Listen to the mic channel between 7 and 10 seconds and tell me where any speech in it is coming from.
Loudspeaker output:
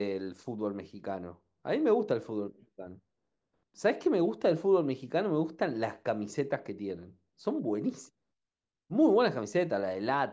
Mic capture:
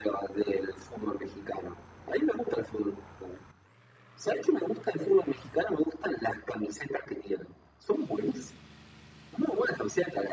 echo only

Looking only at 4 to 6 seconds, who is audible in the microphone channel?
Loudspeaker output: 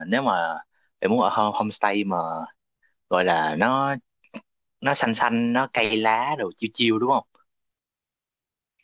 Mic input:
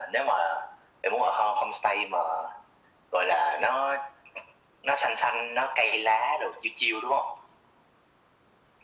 echo only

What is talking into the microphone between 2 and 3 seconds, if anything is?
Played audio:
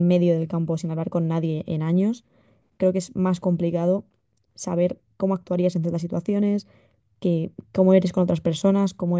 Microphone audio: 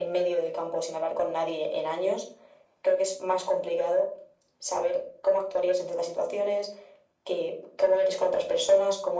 echo only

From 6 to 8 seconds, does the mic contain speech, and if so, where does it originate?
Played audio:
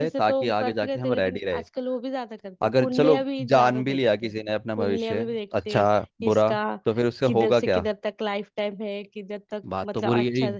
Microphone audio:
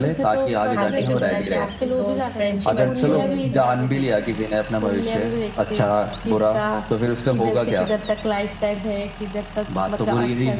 echo only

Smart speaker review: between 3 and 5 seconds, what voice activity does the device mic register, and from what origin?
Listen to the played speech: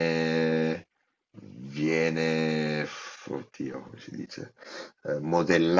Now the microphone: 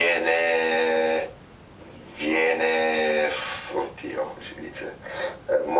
echo only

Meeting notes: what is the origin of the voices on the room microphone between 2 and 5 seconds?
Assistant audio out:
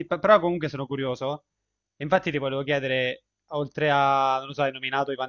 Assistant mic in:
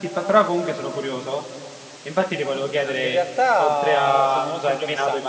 both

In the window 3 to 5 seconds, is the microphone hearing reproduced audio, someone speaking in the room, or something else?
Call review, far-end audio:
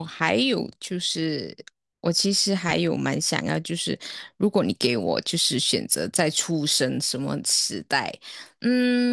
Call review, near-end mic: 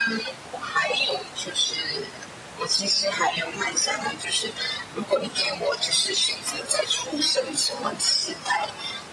echo only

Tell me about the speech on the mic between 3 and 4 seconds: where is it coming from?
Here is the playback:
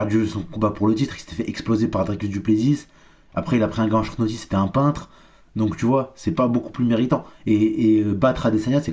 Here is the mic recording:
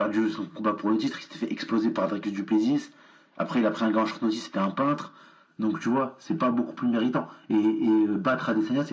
echo only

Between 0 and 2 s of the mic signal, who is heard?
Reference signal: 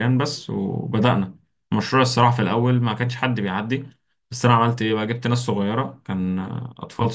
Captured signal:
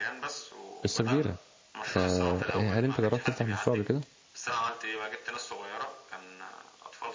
both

